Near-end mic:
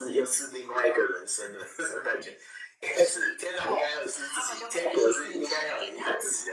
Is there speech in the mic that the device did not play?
No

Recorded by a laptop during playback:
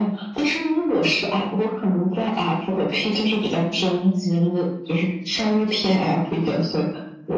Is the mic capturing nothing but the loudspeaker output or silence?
Yes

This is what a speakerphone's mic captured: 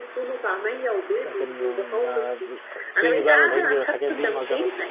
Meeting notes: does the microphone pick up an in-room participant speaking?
Yes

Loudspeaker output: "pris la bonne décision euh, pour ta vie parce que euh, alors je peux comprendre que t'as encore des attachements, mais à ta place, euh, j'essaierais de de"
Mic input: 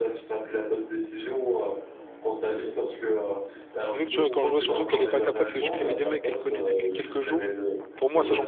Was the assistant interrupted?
Yes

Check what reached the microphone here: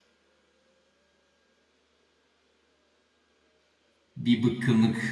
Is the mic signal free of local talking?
No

